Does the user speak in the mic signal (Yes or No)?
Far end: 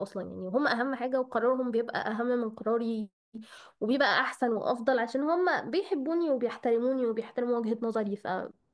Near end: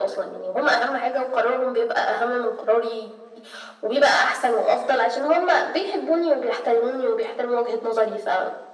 No